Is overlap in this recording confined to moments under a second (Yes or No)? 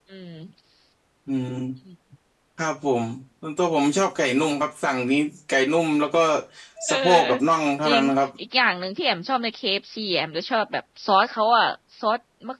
Yes